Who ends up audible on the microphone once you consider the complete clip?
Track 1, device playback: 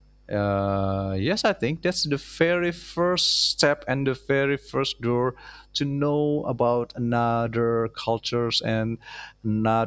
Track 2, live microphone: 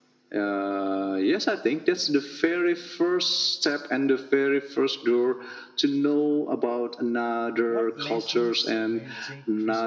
both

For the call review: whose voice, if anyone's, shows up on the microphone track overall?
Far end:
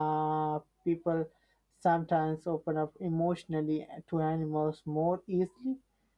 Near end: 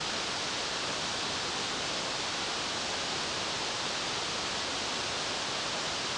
neither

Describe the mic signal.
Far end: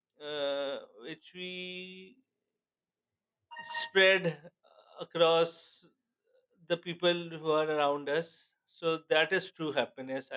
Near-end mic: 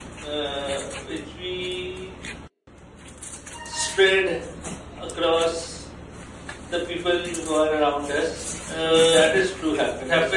both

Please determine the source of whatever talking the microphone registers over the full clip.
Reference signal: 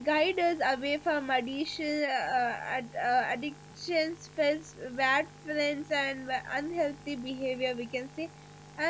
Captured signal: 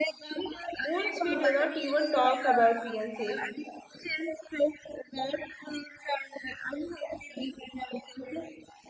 both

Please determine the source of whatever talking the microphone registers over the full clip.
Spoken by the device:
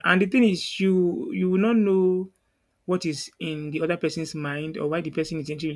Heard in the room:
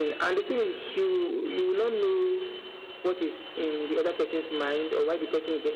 echo only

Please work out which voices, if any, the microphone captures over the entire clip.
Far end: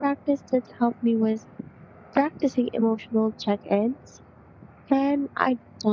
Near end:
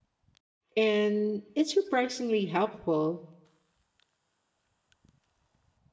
user only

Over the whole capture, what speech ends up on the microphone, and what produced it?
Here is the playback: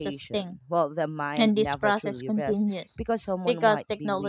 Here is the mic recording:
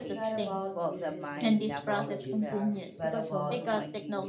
both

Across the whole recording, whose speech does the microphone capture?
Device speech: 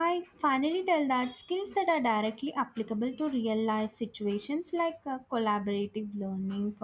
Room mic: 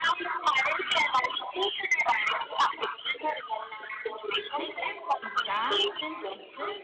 both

